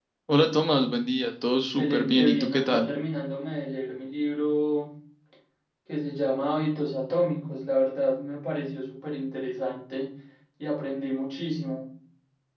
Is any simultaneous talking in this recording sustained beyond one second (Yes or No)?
Yes